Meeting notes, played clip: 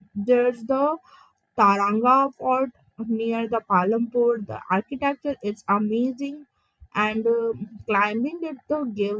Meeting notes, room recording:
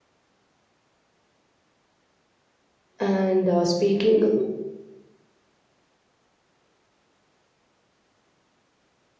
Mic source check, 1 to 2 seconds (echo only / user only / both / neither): neither